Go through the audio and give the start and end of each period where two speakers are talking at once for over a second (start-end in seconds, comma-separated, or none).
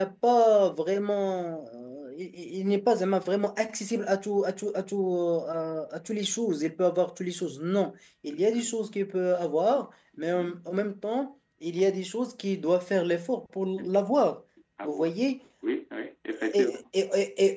none